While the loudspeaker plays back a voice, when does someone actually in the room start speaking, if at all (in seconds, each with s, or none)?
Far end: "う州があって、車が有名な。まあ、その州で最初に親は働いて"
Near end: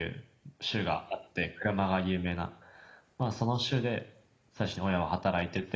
none